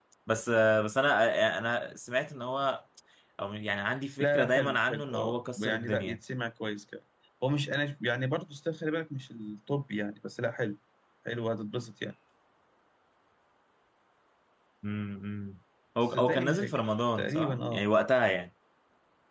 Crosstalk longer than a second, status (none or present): present